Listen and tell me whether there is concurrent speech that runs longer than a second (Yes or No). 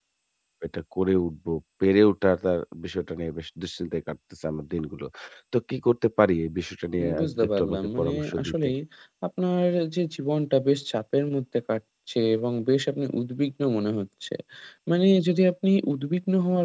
Yes